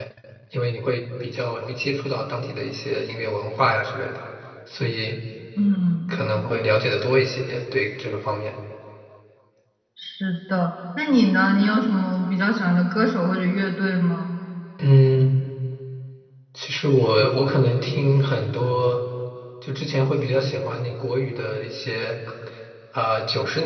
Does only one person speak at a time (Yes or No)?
Yes